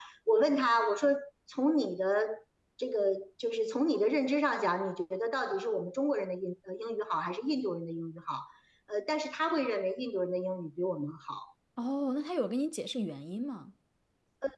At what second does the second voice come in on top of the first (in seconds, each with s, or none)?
none